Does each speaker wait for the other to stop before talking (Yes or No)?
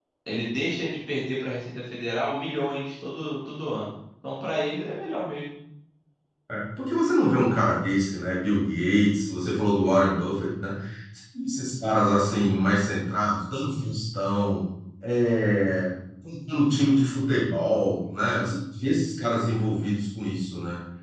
Yes